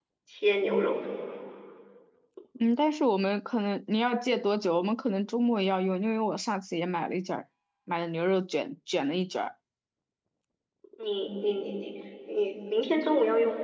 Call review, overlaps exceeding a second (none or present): none